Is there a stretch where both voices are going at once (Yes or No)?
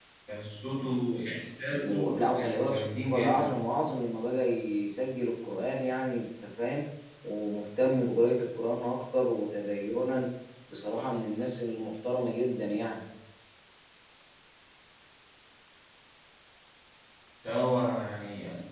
Yes